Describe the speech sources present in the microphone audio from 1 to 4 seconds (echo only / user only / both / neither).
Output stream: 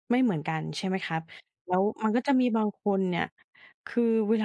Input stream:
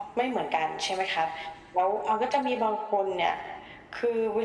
echo only